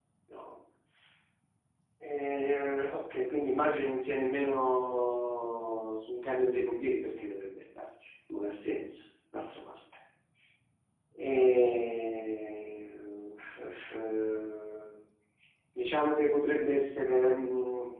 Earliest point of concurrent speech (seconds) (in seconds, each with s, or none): none